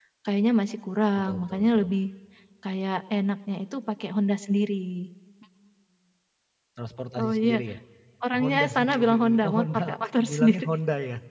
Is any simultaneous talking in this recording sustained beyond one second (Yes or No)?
Yes